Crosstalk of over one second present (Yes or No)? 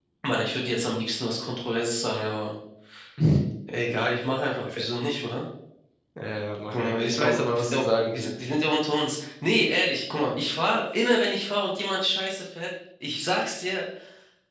Yes